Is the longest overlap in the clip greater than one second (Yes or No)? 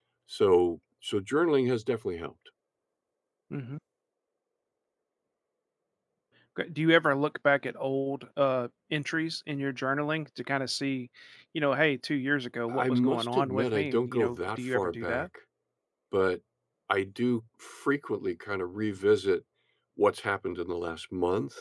Yes